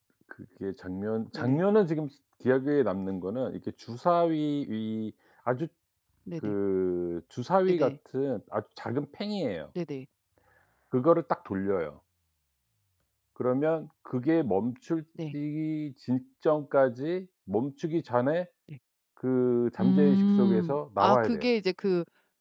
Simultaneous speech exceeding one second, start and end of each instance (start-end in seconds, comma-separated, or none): 19.8-21.5